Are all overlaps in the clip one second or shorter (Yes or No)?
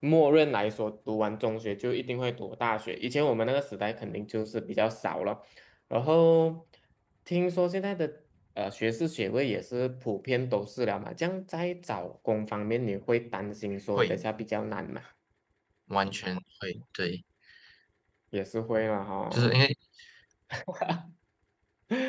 Yes